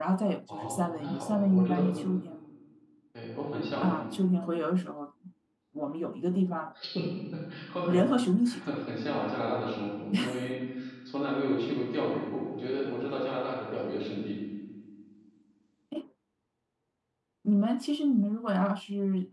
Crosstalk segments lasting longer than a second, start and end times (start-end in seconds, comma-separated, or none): 0.5-1.9